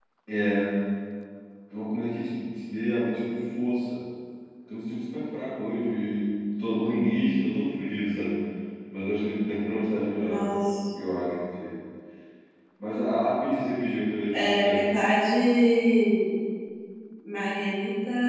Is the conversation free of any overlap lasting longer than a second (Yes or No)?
Yes